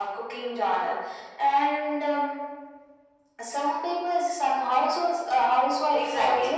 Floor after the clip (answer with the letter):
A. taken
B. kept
A